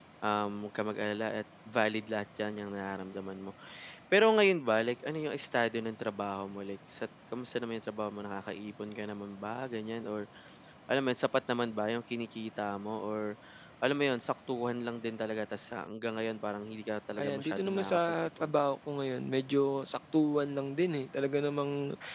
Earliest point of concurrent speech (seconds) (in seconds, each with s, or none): 17.2 s